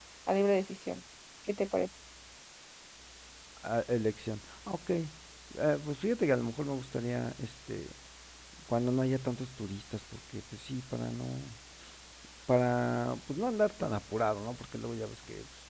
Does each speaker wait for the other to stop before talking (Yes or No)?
Yes